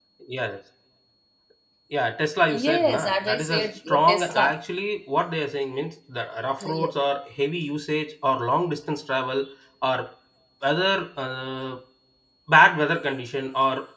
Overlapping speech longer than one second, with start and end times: 2.5-4.6

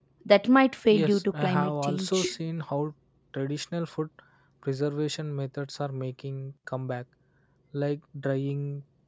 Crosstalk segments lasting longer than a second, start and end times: 0.9-2.3

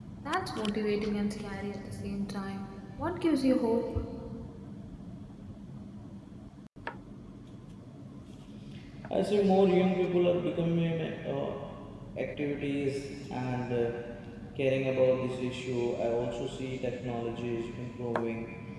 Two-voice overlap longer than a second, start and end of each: none

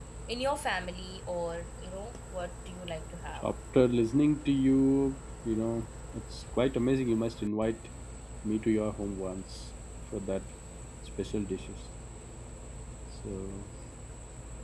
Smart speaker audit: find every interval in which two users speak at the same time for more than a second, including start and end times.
none

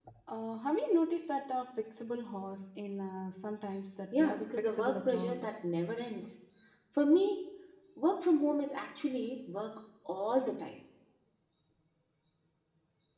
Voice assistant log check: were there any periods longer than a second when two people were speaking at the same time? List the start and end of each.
4.2-5.4

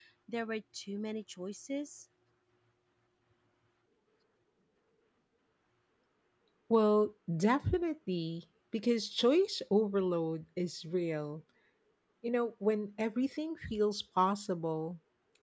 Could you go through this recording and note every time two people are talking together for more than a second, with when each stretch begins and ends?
none

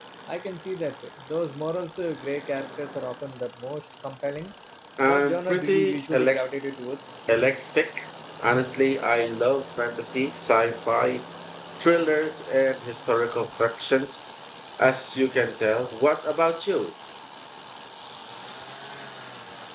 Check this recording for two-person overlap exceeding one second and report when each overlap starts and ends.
5.1-6.5

